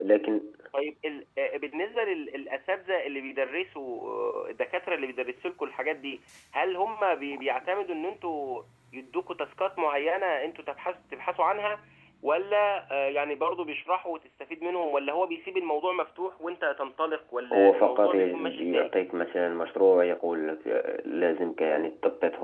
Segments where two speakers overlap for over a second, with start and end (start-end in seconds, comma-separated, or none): 17.5-18.9